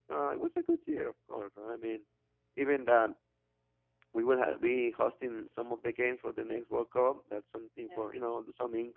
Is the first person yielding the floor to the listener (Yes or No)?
No